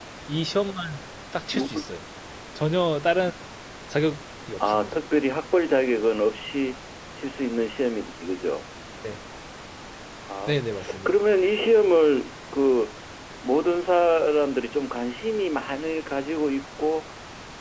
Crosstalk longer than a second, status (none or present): none